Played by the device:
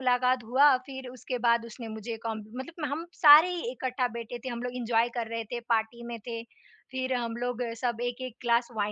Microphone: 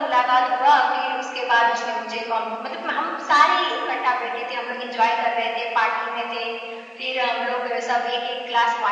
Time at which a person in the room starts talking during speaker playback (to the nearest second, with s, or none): none